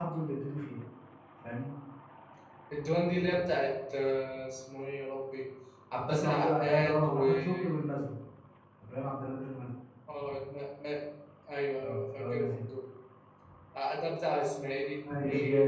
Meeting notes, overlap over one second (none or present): present